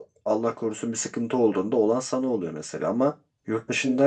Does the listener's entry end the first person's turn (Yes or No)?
No